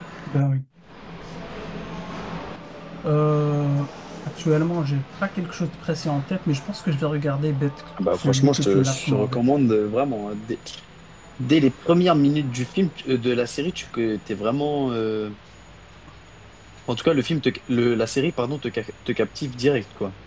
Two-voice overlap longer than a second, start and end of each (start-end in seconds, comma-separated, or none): 8.1-9.4